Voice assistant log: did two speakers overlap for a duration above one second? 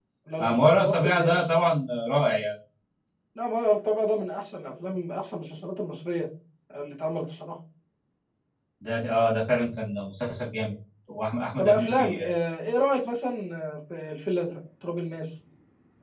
Yes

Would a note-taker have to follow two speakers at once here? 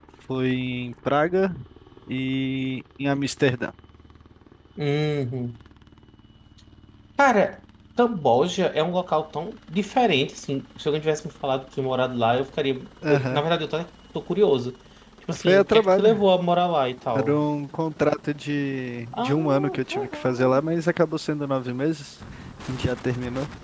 Yes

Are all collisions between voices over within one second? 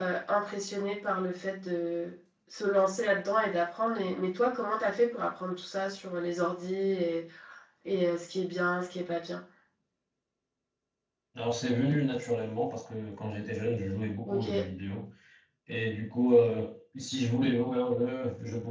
Yes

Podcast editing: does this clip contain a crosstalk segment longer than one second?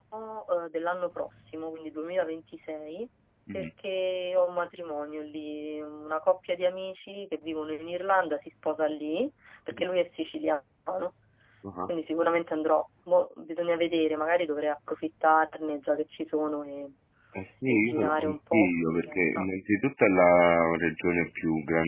Yes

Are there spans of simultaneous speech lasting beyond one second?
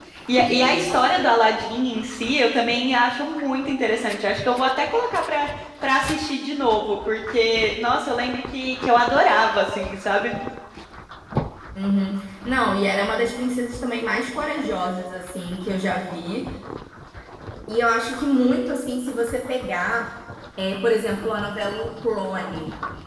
No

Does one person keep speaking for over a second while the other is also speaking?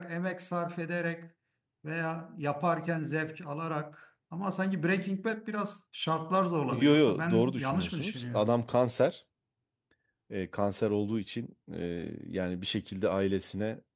Yes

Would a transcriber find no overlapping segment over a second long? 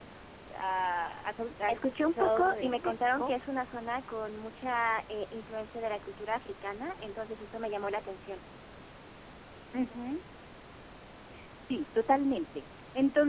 No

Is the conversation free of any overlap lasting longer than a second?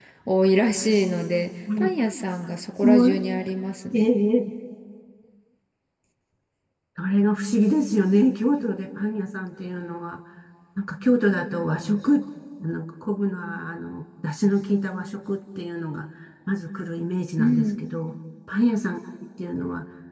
Yes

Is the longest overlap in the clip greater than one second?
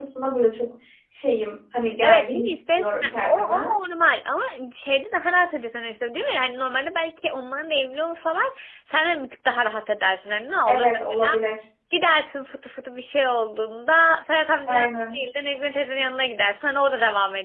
Yes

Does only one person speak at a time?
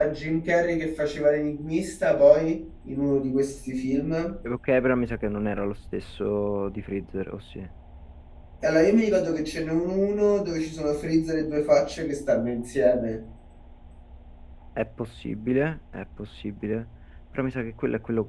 Yes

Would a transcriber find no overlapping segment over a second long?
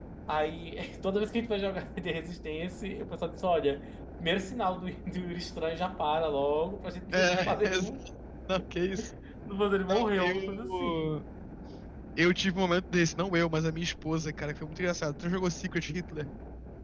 No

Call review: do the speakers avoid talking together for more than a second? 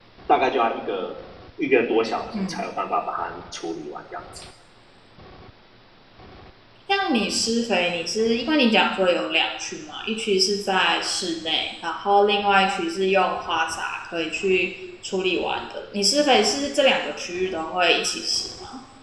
Yes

